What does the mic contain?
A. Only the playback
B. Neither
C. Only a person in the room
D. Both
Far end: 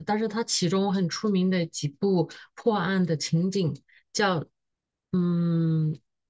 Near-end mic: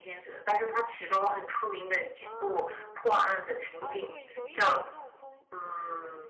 D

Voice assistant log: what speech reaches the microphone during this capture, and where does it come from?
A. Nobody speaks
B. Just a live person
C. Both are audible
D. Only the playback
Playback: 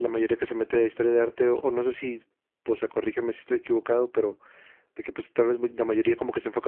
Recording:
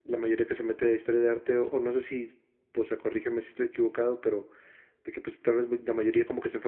D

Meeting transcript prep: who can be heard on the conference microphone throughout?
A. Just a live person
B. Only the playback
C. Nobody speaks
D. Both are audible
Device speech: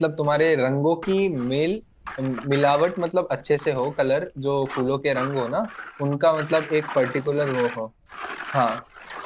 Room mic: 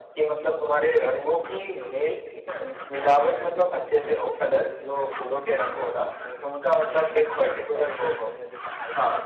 D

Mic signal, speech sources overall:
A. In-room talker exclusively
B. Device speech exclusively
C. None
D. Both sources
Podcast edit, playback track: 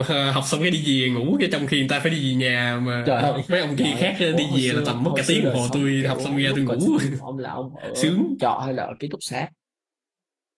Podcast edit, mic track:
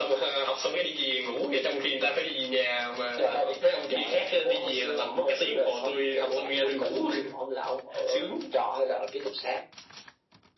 B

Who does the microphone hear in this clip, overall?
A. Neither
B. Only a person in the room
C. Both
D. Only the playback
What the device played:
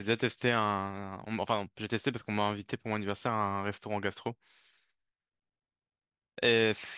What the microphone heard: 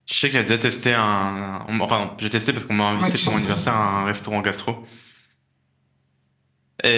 C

